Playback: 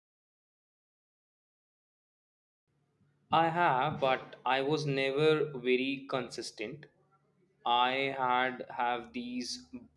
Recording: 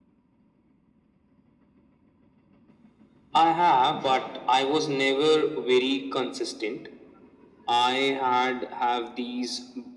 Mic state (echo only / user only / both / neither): echo only